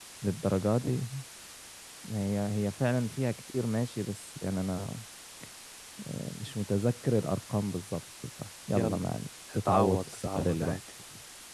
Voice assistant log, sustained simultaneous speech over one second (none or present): present